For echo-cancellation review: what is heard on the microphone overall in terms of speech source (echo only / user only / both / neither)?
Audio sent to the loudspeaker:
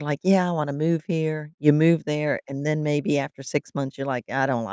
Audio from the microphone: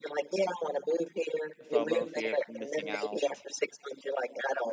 both